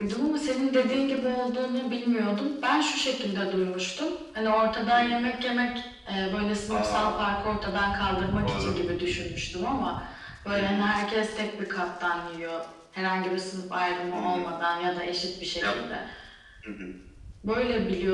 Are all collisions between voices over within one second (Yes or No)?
Yes